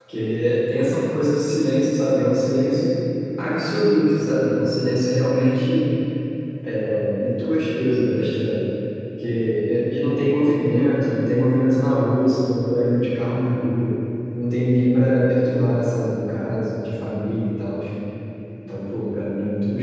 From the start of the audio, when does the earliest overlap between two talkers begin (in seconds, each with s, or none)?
none